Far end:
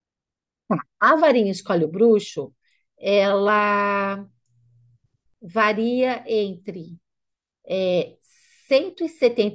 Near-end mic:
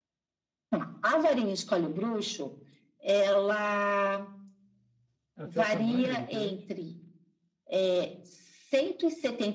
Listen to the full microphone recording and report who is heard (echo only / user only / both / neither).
both